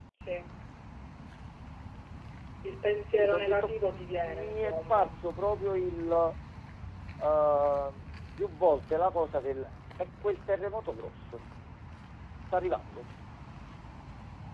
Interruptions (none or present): present